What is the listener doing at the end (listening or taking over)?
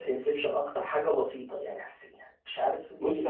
taking over